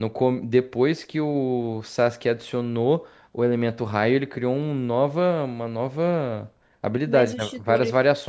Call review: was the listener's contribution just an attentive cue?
No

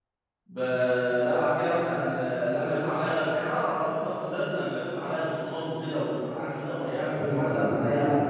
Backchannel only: No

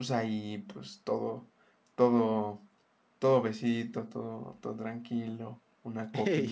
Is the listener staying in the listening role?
Yes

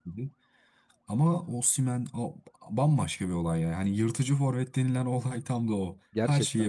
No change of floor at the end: No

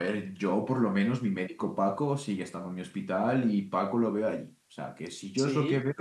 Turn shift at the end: Yes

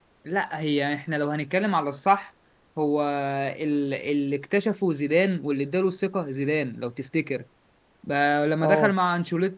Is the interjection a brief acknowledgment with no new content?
Yes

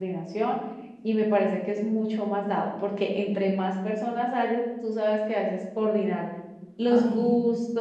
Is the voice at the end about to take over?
No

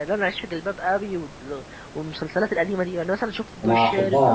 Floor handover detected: Yes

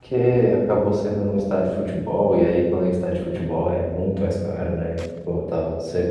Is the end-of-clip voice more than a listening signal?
No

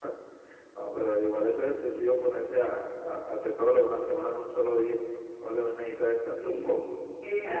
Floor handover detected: Yes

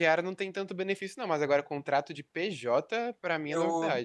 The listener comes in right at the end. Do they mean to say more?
Yes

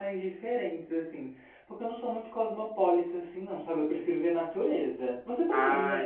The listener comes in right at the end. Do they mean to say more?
Yes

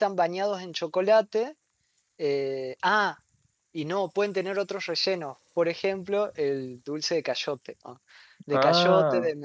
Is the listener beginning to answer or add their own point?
No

